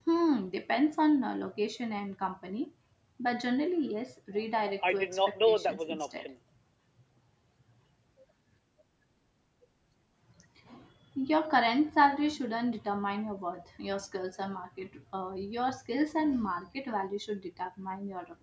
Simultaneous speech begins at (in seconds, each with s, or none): 4.3 s